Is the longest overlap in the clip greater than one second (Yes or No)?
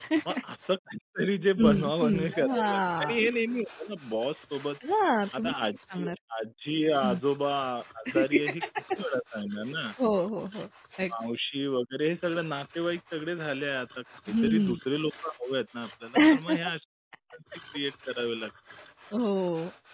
Yes